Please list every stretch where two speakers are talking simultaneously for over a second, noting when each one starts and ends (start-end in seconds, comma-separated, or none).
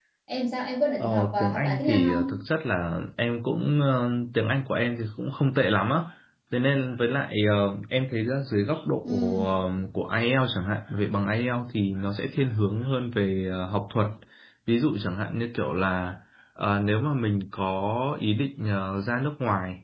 1.0-2.2